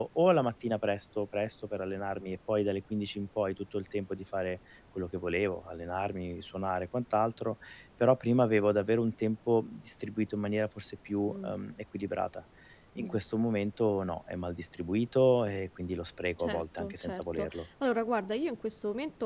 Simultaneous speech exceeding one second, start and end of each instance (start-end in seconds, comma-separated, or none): 16.4-17.6